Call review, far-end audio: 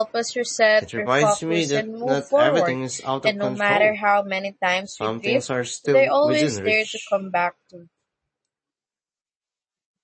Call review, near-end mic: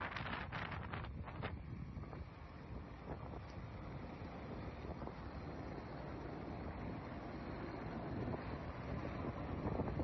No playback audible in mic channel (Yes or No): Yes